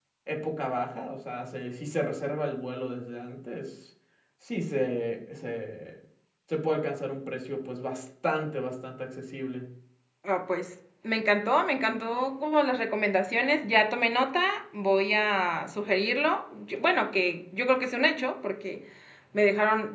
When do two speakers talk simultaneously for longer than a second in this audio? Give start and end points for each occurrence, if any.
none

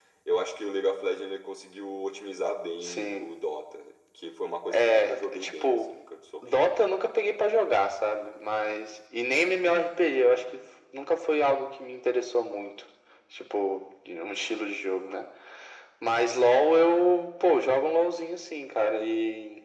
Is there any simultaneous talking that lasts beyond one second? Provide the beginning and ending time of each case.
4.7-5.9

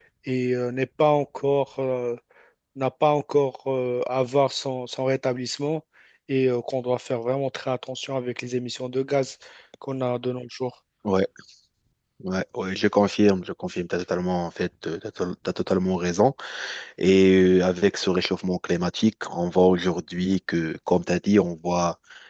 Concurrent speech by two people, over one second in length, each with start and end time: none

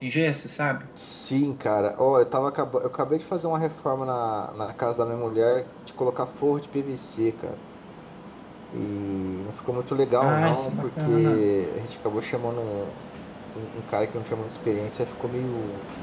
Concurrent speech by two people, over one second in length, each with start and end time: 10.2-11.5

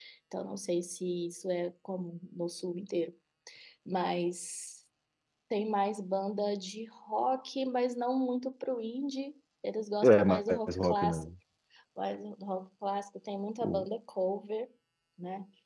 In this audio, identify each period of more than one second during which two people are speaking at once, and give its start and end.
10.0-11.3

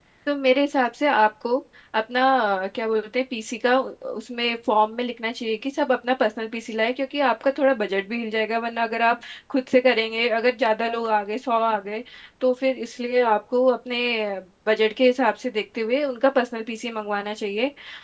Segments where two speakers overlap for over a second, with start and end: none

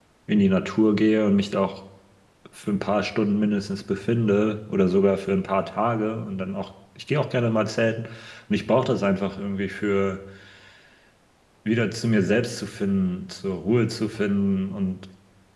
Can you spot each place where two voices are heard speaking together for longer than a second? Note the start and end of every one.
none

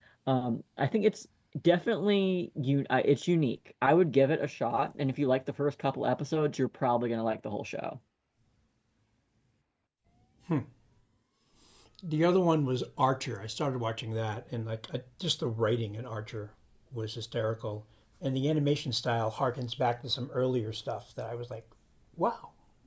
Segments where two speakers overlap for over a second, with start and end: none

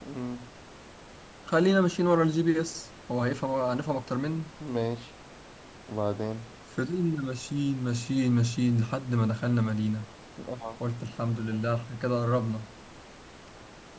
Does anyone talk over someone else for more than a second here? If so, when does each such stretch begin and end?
none

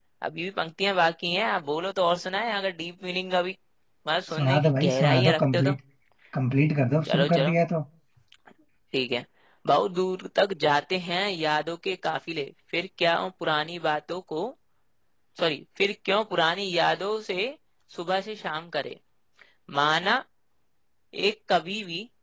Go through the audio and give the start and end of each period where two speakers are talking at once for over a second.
4.3-5.8

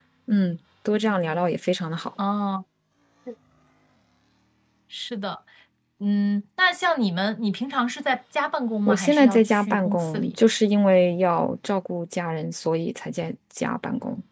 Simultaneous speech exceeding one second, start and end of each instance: 8.9-10.4

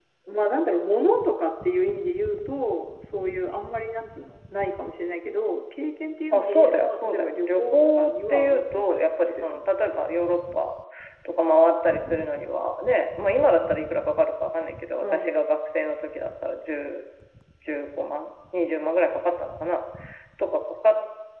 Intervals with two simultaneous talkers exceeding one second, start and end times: 6.3-9.7

